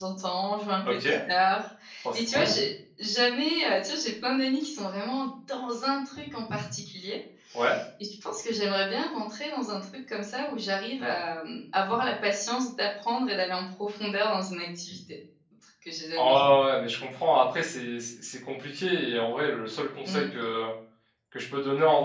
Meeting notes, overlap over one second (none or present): none